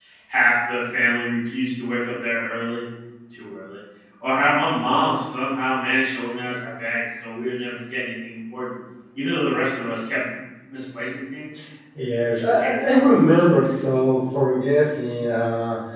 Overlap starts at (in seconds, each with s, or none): 12.3 s